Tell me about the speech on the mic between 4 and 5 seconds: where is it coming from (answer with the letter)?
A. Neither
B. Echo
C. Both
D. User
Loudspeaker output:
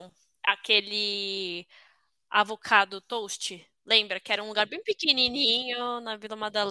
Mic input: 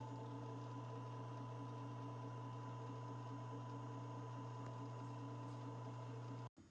A